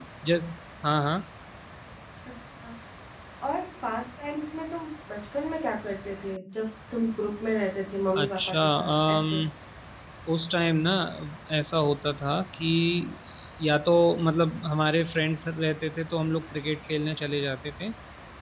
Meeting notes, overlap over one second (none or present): present